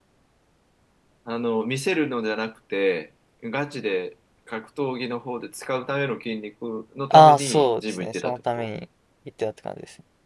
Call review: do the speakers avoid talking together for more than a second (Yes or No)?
No